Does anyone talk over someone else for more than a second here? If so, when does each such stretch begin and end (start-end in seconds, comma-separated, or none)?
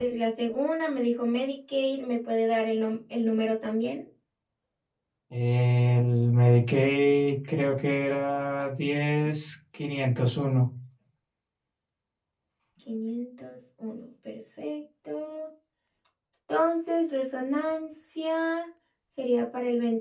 none